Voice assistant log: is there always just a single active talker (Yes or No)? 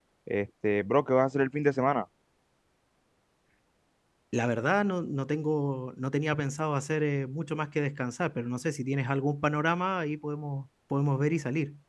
Yes